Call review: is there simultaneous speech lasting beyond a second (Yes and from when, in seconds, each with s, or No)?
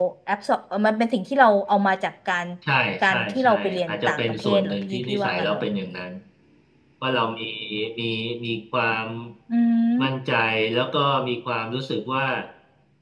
Yes, from 3.0 s